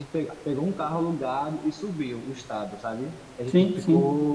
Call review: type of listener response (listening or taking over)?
listening